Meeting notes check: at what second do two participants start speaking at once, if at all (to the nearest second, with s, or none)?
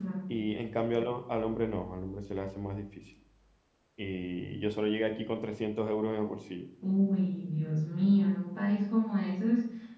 none